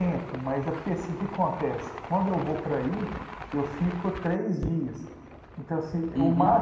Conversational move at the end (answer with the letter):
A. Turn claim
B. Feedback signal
B